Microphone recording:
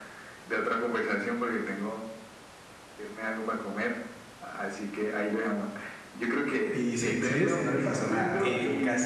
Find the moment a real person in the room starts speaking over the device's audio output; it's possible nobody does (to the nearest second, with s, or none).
7 s